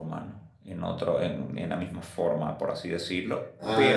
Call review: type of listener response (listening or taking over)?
taking over